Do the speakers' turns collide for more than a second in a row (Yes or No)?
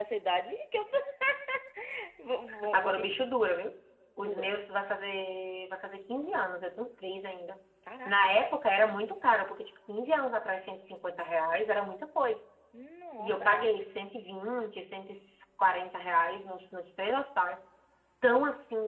No